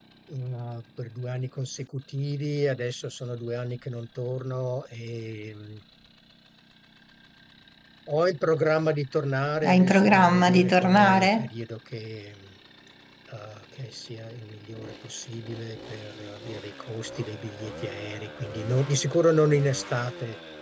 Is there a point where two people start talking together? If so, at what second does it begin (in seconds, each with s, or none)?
9.6 s